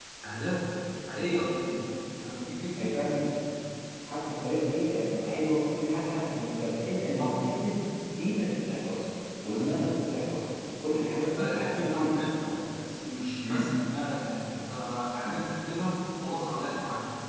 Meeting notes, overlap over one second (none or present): present